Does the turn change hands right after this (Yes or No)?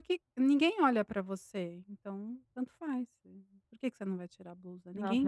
Yes